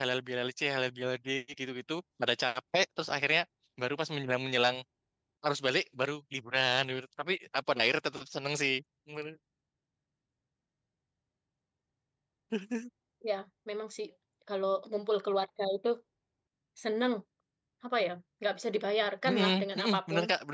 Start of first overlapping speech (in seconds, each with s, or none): 19.2 s